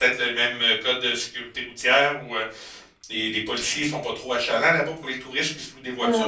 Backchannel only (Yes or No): No